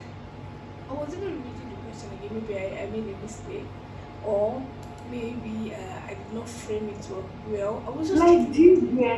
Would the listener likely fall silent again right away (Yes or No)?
No